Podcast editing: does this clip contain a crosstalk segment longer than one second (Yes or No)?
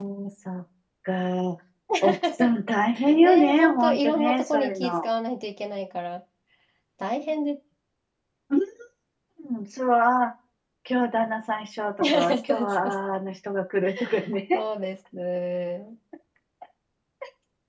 Yes